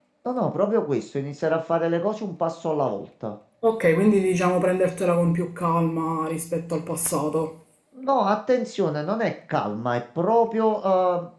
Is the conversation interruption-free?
Yes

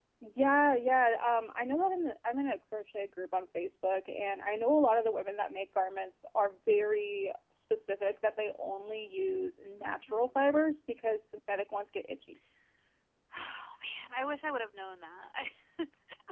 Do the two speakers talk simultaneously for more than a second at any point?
No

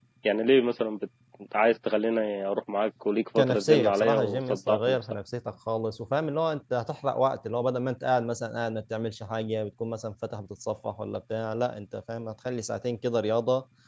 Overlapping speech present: Yes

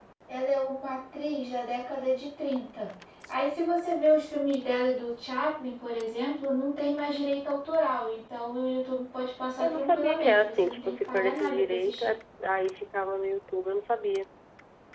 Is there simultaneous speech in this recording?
Yes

